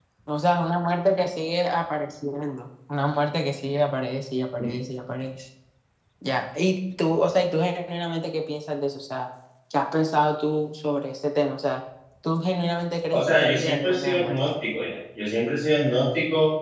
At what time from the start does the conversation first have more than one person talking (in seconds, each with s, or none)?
13.1 s